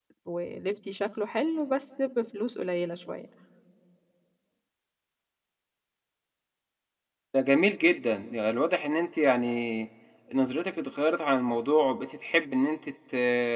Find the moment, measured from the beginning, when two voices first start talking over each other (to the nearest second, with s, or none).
none